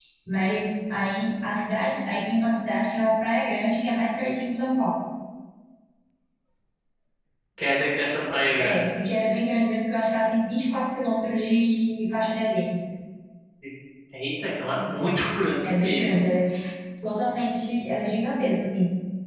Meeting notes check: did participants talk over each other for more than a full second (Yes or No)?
No